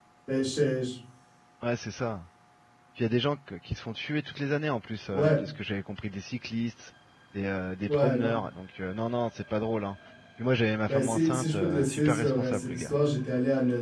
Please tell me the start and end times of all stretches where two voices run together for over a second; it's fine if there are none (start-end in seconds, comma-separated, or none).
10.9-13.0